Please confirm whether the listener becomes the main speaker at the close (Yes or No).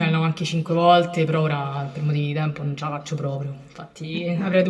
No